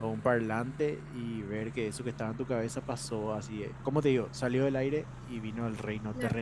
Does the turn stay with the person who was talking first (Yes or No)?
No